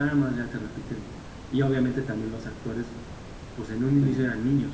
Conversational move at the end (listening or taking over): listening